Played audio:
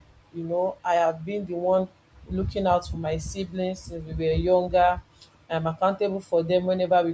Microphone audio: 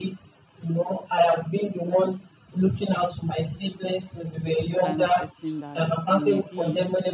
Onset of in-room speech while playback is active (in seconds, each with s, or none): 4.7 s